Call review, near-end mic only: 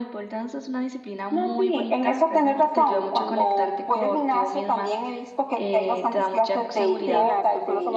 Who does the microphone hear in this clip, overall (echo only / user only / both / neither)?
both